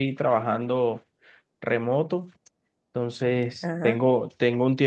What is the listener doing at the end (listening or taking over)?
listening